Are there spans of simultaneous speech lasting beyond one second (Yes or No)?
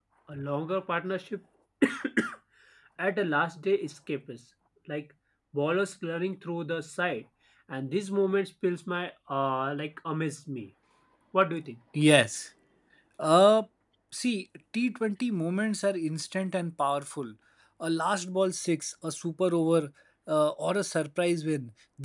No